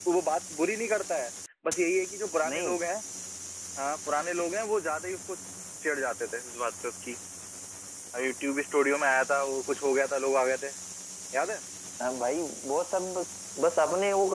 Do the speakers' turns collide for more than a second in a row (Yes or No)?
No